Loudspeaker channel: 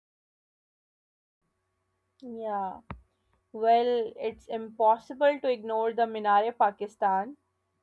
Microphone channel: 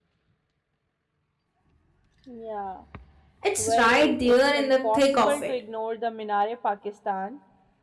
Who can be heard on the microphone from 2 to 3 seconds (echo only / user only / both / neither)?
echo only